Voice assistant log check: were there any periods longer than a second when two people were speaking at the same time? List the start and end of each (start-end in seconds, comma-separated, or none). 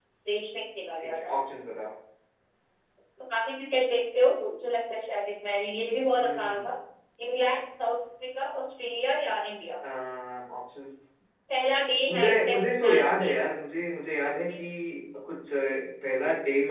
12.1-13.4